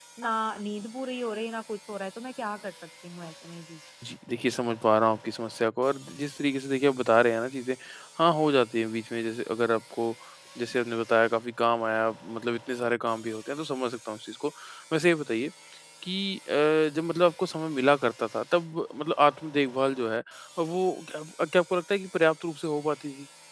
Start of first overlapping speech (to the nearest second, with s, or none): none